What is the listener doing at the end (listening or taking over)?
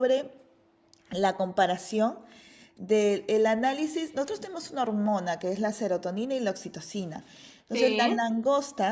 listening